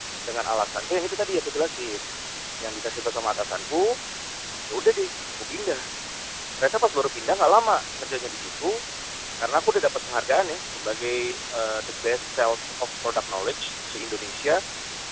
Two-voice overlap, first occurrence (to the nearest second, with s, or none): none